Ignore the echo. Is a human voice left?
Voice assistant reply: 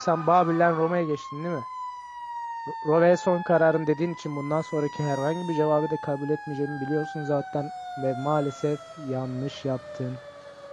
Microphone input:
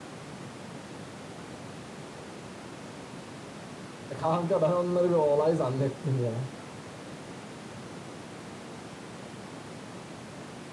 Yes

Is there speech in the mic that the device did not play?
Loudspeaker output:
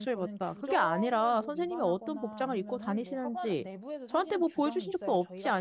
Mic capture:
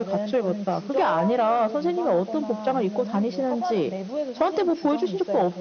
No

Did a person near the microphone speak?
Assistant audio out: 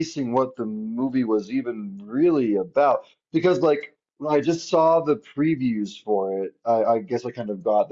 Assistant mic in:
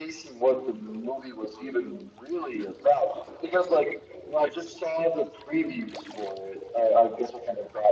No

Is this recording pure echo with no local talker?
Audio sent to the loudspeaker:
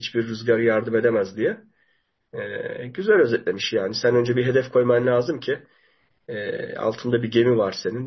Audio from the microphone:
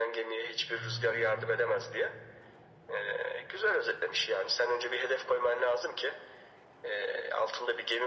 No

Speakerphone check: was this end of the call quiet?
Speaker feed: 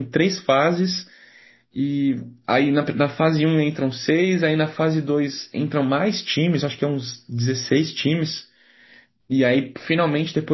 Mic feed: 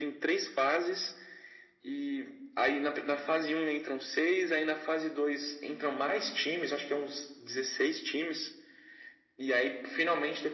Yes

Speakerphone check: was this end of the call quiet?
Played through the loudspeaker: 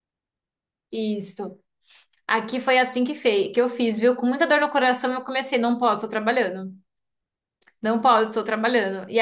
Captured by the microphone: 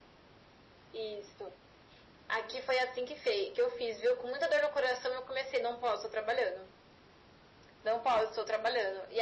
Yes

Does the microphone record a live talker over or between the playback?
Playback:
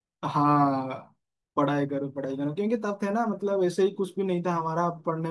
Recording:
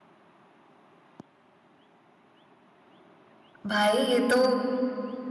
Yes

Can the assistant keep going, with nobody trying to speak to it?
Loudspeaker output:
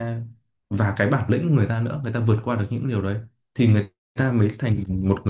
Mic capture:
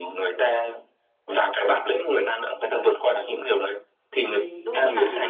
No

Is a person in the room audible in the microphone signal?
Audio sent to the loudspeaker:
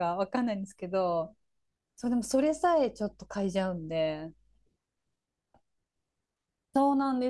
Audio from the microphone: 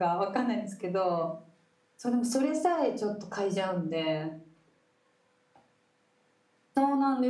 No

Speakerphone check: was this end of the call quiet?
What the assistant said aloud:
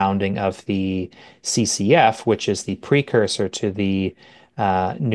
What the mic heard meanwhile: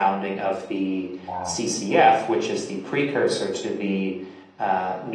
No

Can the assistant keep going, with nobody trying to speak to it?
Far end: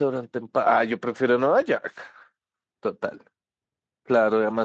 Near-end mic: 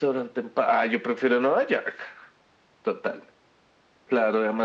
Yes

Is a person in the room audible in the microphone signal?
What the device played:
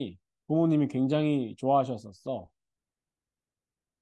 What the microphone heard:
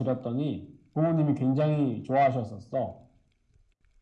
No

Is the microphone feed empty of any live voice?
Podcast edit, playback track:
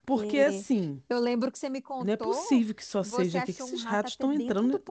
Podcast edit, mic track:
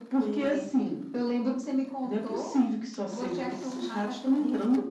Yes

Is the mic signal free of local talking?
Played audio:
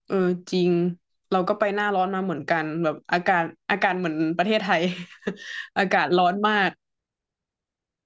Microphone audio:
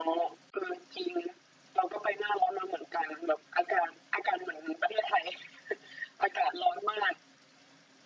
Yes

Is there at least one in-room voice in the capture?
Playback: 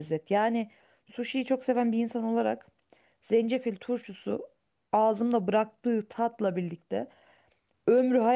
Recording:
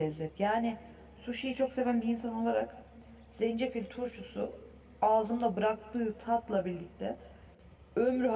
No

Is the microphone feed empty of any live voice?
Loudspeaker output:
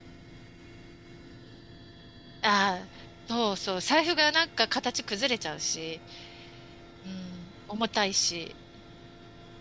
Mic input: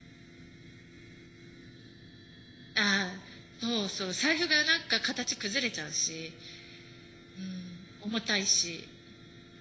Yes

